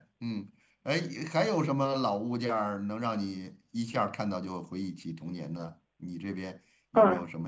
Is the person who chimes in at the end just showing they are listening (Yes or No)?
No